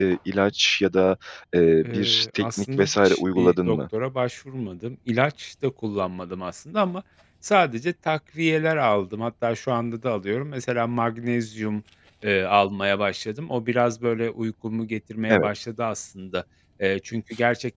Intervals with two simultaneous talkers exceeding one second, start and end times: 1.8-3.8

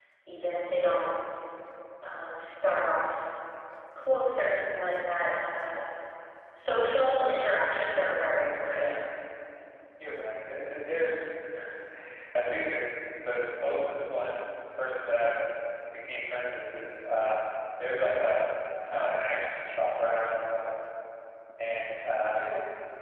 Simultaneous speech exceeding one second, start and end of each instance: none

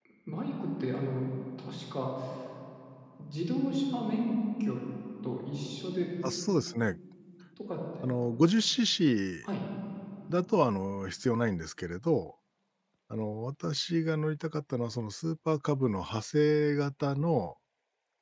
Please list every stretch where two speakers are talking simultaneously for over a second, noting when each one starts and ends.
none

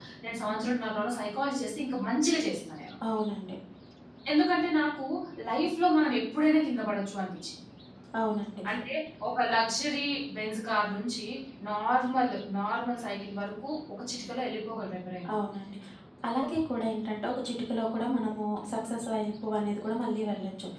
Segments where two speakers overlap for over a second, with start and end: none

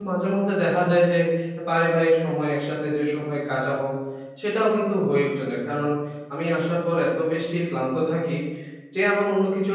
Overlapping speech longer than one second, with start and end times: none

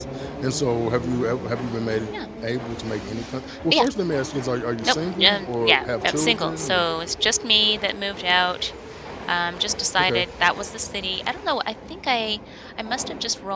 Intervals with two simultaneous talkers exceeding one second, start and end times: 4.9-6.8

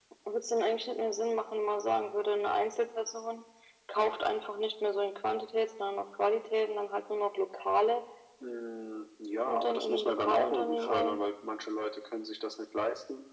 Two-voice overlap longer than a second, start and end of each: 9.5-11.2

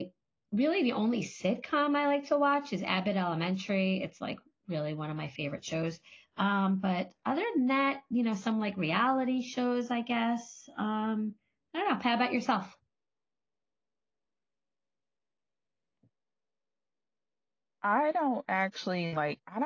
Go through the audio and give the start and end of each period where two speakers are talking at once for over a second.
none

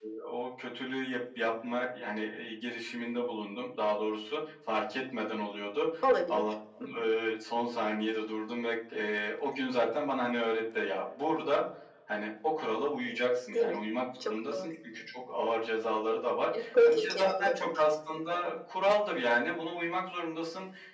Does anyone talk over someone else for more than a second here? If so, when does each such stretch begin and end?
16.6-17.8

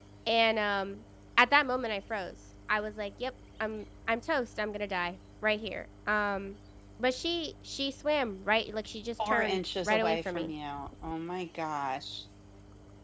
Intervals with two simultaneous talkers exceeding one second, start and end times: 9.3-10.5

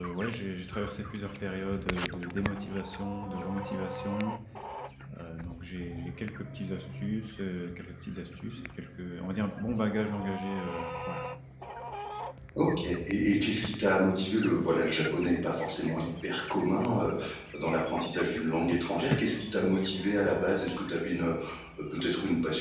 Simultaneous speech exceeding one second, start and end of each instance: none

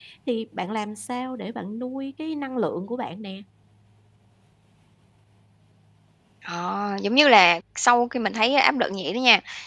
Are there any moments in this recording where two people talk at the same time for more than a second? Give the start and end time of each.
none

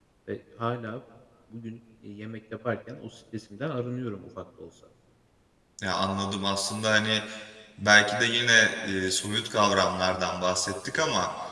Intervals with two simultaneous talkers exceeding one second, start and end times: none

